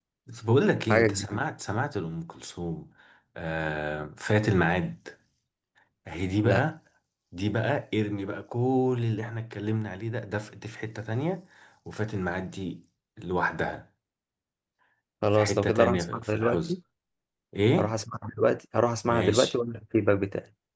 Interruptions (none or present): present